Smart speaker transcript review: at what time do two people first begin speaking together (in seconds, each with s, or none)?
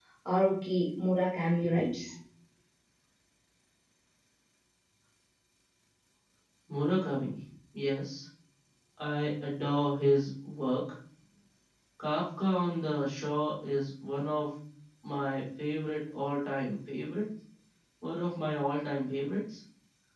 none